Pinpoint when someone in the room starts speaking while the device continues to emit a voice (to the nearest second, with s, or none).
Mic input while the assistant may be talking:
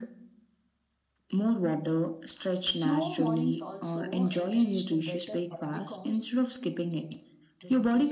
3 s